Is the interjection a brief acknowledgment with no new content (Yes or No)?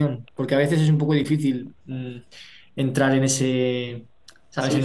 No